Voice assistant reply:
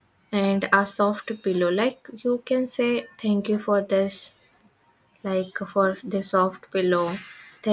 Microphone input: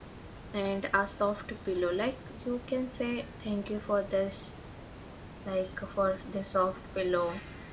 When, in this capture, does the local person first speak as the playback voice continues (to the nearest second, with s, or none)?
none